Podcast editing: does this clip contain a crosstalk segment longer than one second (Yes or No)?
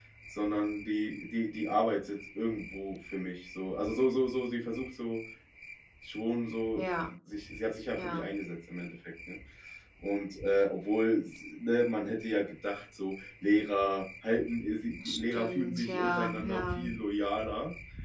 Yes